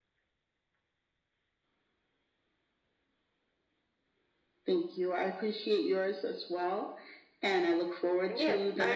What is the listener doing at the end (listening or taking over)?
taking over